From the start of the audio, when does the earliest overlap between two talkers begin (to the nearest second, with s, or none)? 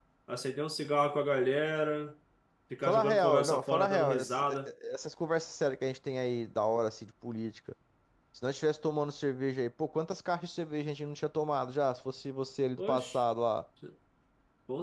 3 s